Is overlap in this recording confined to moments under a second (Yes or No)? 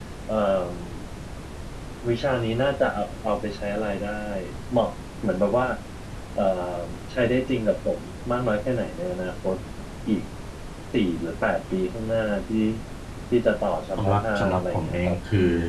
No